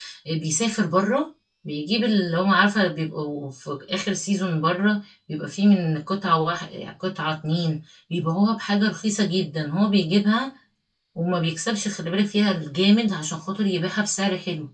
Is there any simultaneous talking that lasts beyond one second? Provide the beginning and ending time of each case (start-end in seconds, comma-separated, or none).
none